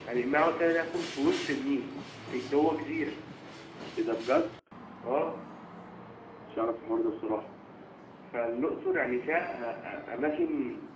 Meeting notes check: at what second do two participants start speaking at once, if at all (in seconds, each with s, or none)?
none